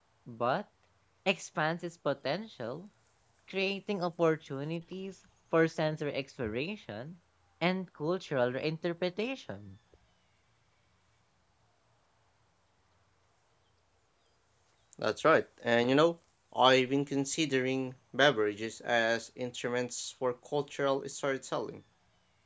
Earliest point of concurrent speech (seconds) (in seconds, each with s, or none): none